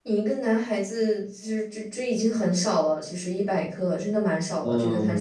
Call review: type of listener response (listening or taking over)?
taking over